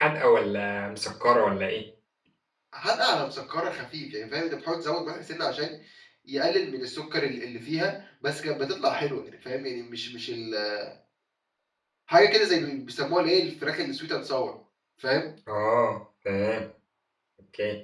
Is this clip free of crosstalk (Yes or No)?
Yes